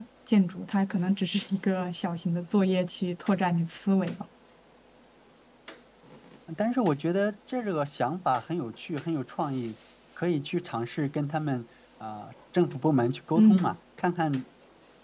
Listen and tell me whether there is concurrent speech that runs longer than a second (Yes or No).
No